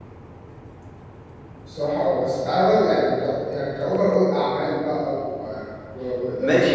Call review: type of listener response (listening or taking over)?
taking over